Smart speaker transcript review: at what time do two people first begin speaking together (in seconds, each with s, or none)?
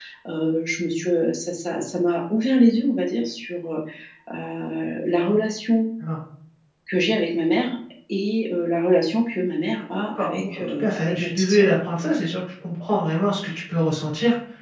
10.1 s